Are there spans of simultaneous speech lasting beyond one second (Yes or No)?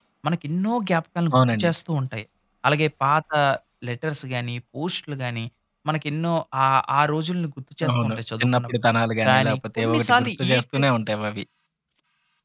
Yes